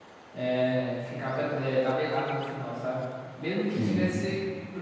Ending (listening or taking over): listening